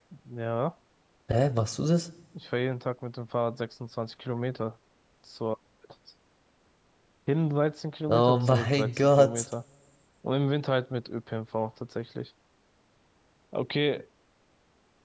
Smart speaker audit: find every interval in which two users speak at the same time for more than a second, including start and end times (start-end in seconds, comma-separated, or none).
8.1-9.4